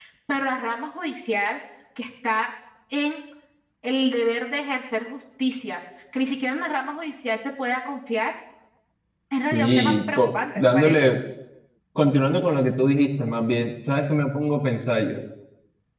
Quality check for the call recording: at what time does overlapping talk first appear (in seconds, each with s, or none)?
9.5 s